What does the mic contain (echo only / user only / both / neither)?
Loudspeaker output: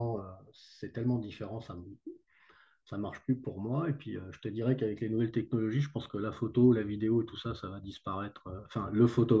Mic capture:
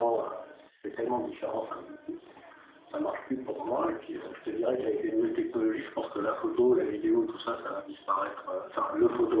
echo only